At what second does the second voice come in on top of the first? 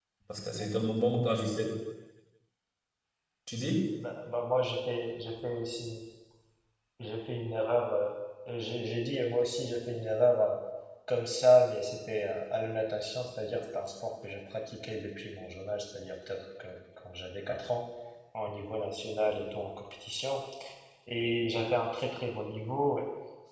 none

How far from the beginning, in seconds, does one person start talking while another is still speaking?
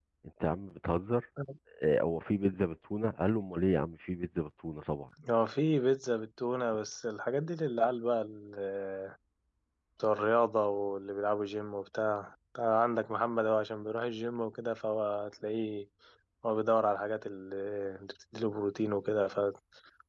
none

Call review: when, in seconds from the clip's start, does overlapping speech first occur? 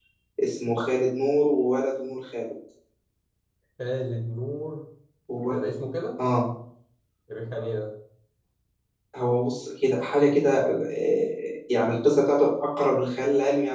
none

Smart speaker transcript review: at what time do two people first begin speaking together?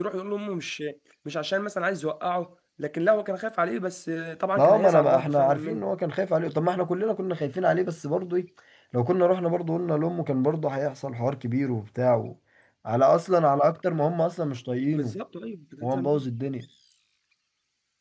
4.6 s

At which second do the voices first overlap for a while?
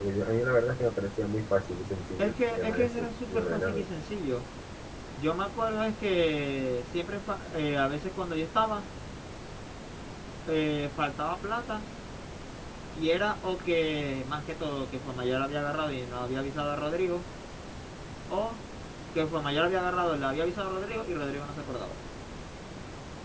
2.2 s

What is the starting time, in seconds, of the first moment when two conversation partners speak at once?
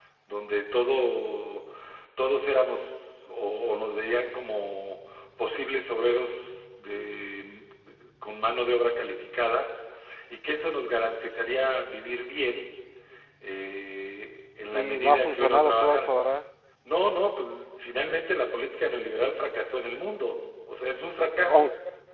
14.7 s

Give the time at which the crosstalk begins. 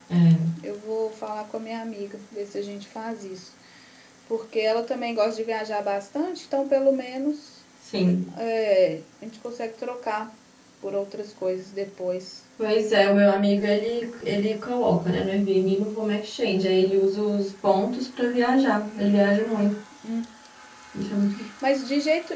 none

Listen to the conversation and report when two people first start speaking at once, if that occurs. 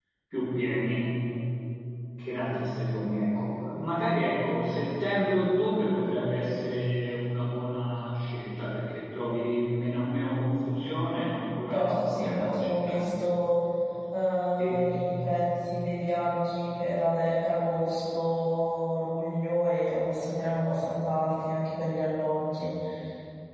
11.7 s

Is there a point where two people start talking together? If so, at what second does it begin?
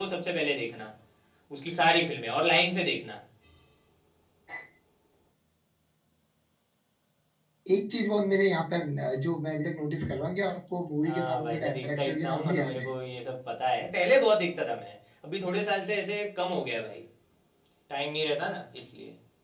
11.0 s

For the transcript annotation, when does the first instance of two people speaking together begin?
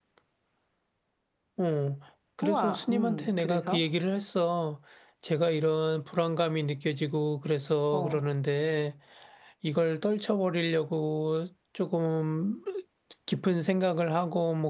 2.4 s

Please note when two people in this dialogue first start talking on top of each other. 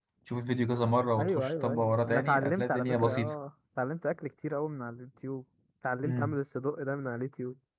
1.2 s

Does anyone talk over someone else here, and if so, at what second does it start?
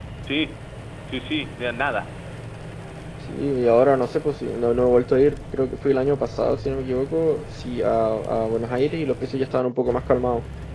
none

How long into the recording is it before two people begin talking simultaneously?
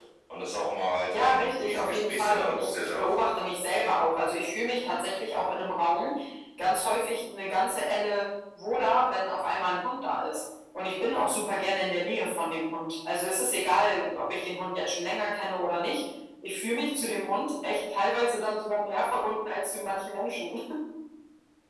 1.1 s

